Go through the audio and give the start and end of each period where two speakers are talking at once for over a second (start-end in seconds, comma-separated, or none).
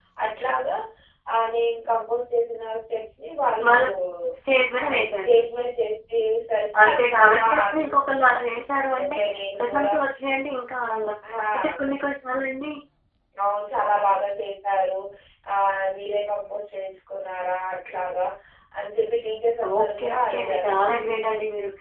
6.8-8.5, 19.8-21.0